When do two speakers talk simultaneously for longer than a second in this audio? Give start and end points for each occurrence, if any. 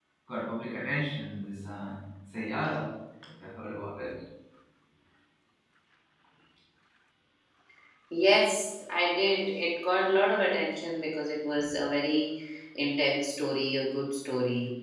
none

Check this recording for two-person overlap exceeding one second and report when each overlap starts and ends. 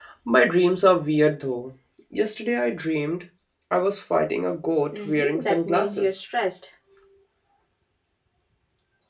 4.9-6.2

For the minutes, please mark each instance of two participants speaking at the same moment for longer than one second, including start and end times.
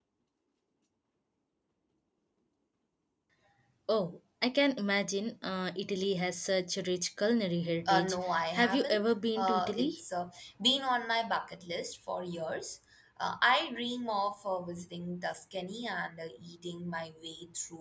7.8-10.0

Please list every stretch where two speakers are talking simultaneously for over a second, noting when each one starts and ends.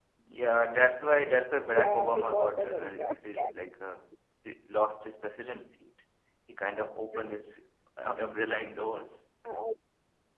1.6-3.5

